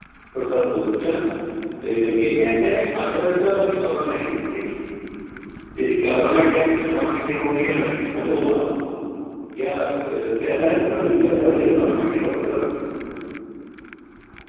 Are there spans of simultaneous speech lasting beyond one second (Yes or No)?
Yes